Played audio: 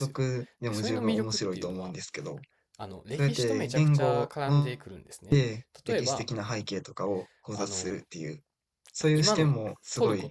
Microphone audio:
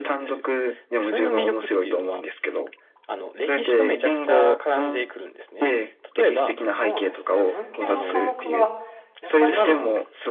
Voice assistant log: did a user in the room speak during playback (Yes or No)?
Yes